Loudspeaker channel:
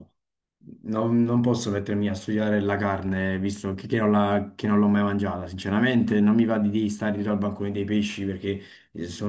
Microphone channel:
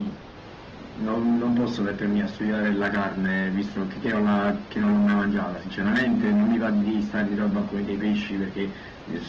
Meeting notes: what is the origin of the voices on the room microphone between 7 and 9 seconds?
echo only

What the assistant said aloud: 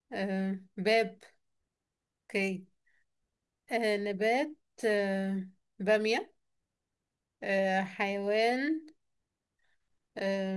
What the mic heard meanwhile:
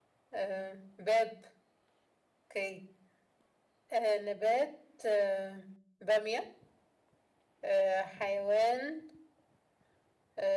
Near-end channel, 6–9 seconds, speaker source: echo only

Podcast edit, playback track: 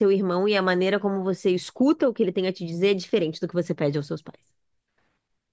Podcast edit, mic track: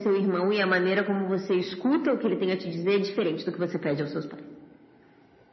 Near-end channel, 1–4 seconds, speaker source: echo only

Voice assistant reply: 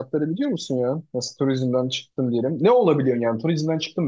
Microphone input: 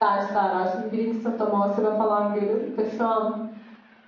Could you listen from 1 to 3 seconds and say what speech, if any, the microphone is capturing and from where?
user only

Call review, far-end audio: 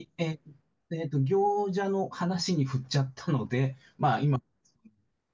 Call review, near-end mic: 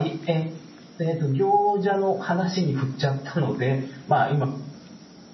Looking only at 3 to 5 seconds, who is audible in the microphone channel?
echo only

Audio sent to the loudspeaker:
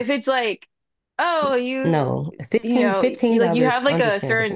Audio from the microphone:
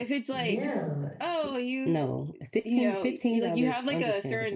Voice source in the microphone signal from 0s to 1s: both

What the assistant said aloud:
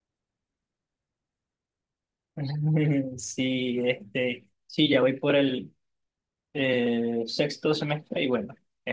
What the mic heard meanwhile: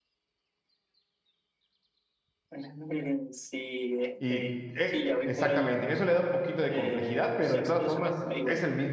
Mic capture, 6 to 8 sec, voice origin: both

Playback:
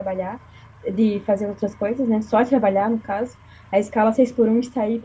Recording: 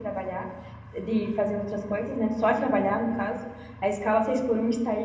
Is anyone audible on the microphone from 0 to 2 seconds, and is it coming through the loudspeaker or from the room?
echo only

